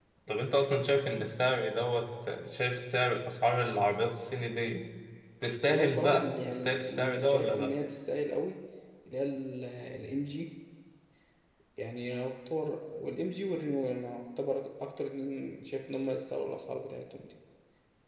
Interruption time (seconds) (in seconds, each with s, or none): 5.7 s